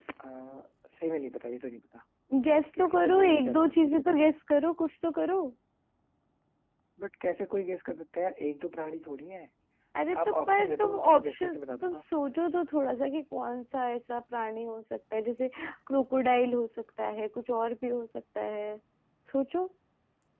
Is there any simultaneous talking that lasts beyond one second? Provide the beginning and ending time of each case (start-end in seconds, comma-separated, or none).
2.6-4.2, 10.2-12.0